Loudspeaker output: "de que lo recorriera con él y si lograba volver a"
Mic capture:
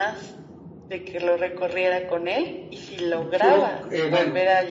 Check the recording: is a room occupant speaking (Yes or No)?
Yes